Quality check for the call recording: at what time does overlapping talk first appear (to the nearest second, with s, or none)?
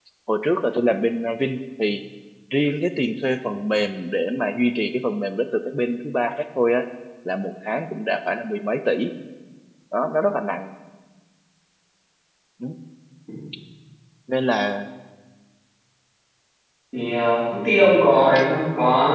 none